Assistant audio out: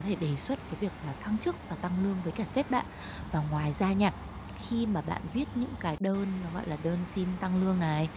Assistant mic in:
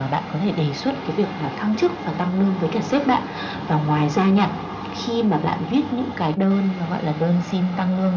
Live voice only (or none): none